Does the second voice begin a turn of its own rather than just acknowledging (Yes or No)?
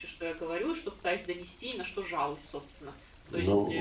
Yes